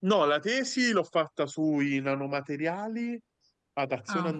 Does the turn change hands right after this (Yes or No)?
No